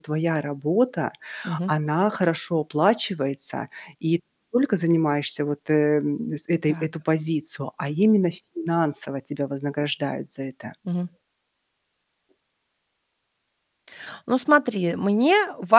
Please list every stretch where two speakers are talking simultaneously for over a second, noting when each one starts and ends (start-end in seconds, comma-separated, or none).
none